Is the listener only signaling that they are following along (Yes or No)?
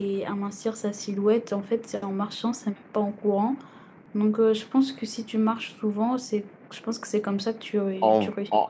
No